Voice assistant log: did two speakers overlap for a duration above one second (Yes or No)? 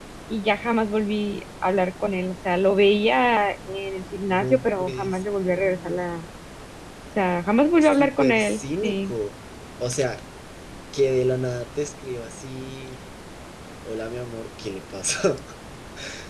Yes